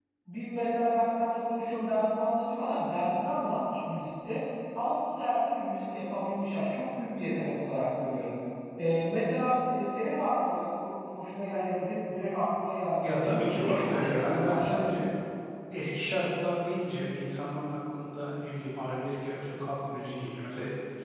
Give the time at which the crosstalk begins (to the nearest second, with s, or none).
13 s